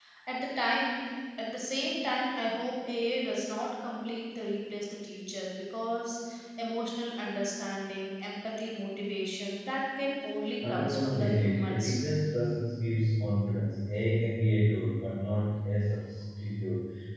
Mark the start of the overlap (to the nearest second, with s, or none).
11 s